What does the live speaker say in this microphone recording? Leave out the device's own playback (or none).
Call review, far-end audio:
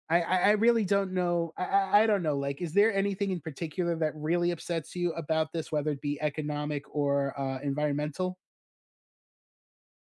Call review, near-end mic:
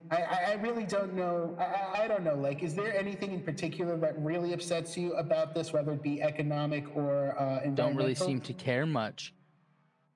don't really seem to care much